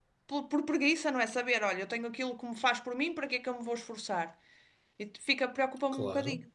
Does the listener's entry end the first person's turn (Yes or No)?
Yes